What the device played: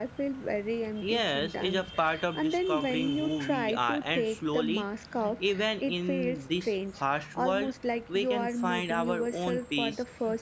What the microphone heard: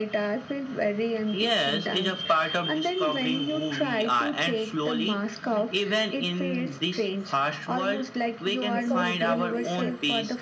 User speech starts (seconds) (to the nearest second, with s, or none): 9 s